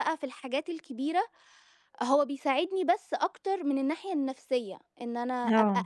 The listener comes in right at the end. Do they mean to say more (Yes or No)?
No